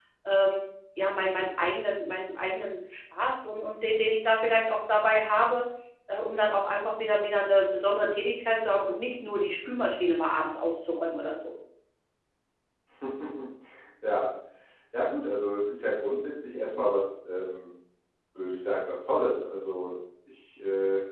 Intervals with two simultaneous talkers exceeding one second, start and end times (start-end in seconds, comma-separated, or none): none